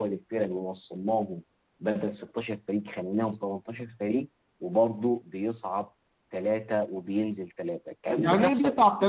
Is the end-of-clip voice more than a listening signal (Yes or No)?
Yes